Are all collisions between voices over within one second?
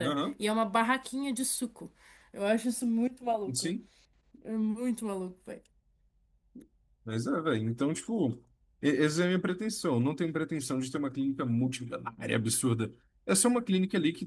Yes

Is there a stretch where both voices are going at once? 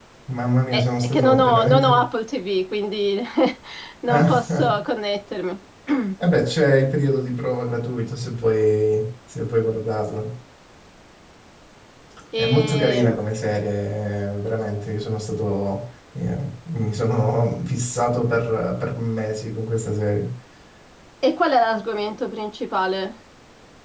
Yes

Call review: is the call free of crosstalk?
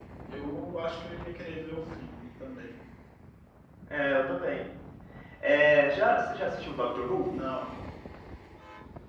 Yes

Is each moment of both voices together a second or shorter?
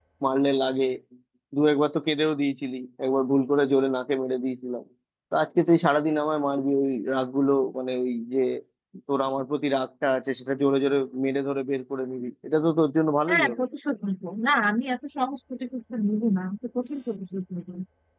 Yes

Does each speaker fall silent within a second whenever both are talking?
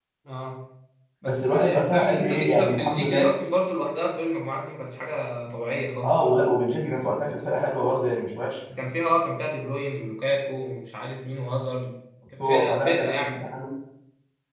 No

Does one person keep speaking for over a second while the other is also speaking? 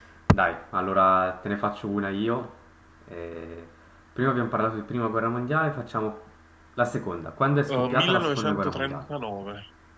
Yes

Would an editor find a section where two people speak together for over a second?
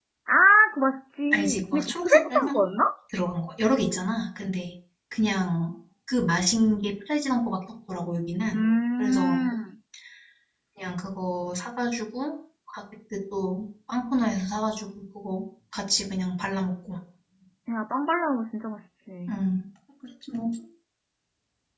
Yes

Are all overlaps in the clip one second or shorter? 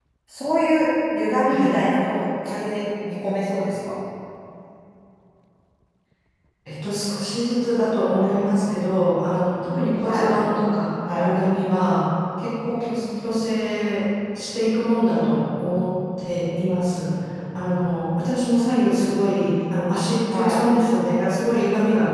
Yes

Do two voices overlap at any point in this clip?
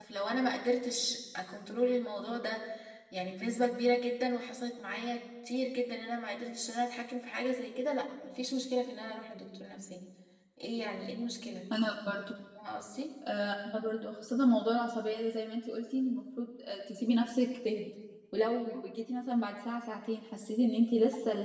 No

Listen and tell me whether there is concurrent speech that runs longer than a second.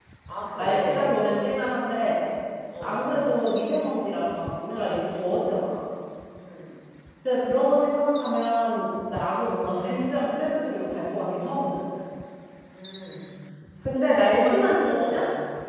Yes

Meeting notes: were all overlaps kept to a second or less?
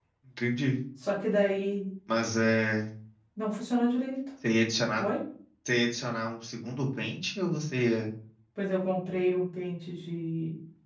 Yes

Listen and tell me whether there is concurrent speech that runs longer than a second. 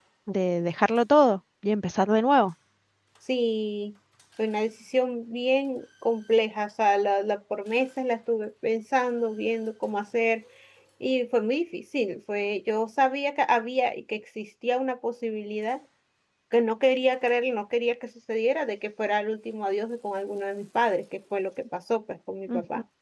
No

